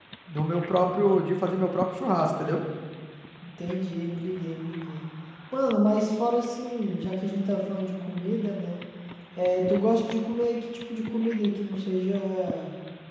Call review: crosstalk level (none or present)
none